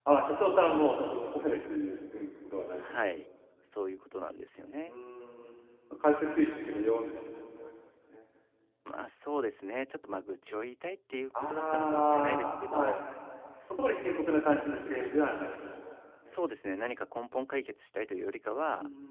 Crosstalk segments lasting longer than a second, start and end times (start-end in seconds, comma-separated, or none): 11.3-13.0